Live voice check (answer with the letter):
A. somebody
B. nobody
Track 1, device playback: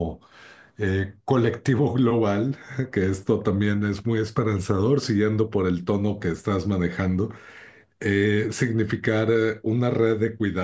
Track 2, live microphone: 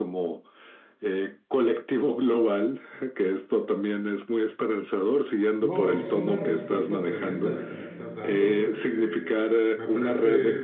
A